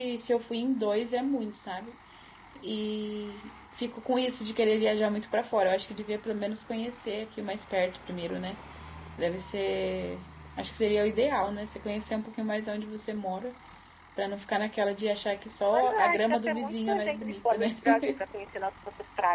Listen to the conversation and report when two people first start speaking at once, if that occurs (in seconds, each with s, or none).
15.7 s